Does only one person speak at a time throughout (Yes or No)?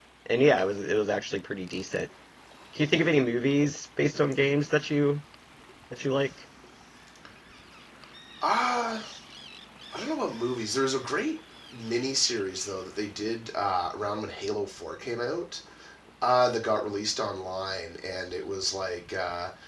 Yes